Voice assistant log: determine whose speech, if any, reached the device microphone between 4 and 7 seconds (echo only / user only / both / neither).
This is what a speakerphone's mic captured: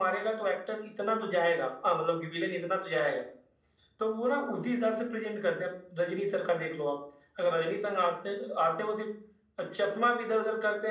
echo only